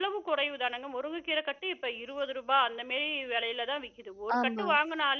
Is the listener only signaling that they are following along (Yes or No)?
Yes